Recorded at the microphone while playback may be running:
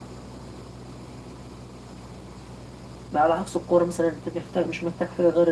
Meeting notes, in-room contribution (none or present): present